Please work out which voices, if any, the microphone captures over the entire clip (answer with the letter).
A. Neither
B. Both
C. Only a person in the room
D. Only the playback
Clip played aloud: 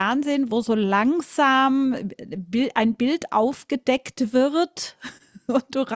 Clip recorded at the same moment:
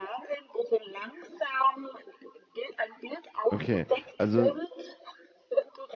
B